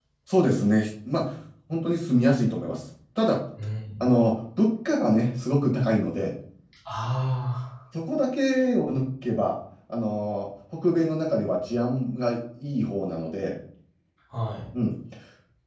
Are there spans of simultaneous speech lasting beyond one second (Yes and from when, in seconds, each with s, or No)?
No